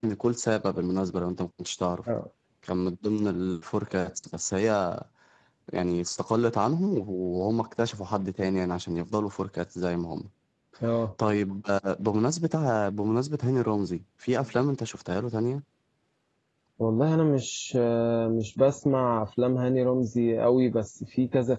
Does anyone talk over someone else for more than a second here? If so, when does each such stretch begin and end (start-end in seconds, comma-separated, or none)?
none